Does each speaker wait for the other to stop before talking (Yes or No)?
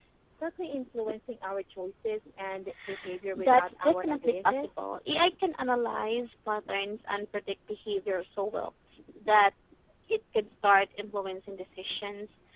No